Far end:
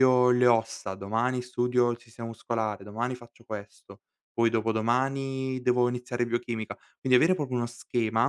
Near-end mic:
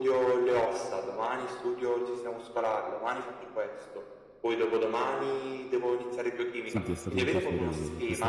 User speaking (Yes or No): Yes